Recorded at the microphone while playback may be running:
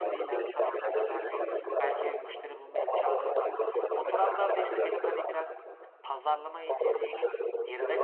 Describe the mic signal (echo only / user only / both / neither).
both